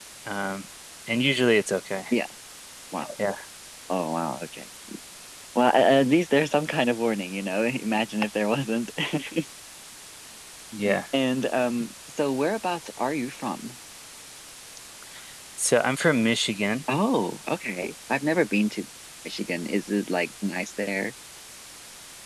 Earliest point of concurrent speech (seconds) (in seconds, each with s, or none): none